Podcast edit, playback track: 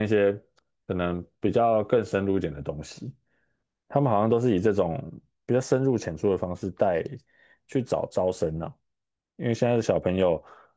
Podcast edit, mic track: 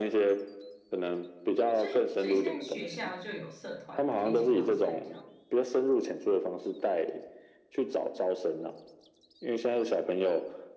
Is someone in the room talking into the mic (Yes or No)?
Yes